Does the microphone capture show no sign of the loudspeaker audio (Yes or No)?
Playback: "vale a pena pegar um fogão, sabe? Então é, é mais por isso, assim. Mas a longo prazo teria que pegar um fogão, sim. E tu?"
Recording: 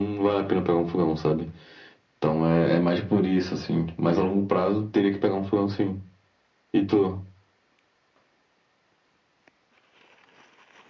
No